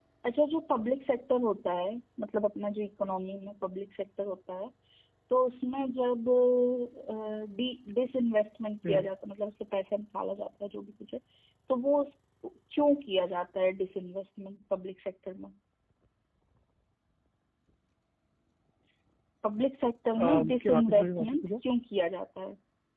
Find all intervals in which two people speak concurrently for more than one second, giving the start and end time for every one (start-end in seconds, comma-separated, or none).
20.2-21.5